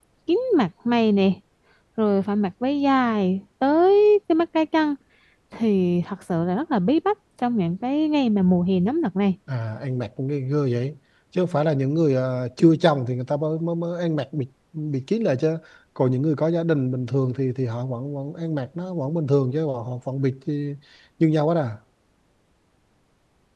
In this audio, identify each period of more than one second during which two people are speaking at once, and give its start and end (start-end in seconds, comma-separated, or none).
none